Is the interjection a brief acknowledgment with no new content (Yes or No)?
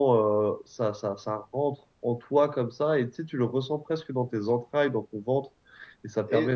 Yes